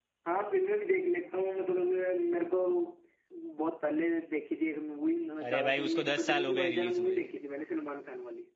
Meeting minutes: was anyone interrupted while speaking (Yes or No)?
Yes